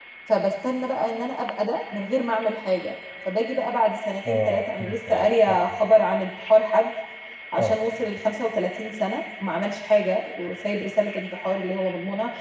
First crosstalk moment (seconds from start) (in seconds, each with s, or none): 4.3 s